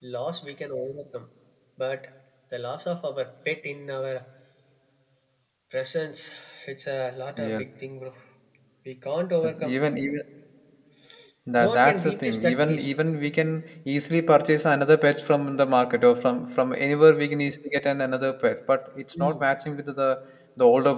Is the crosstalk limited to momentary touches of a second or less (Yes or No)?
No